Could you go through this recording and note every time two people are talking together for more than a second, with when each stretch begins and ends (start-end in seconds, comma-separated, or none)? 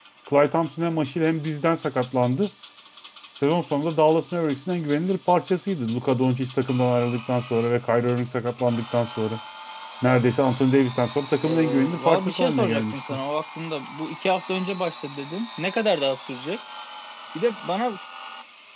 11.4-13.2